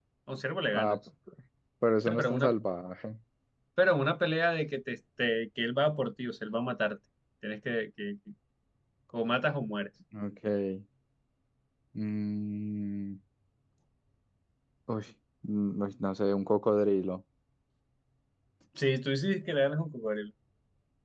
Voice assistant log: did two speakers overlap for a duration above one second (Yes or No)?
No